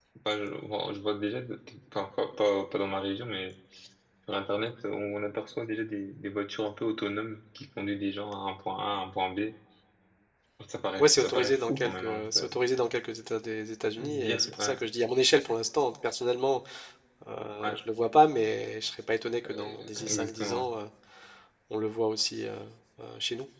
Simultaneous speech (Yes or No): Yes